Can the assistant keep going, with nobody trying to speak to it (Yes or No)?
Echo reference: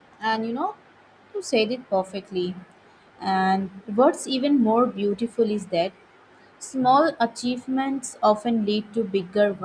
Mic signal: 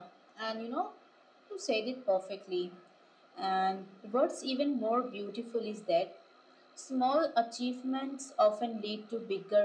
Yes